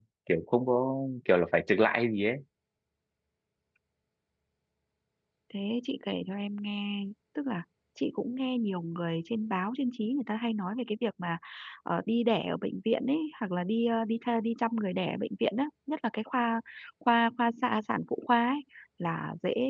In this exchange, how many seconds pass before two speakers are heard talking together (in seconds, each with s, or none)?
none